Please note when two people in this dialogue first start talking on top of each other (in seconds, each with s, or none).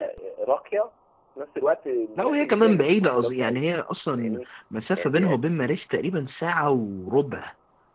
2.2 s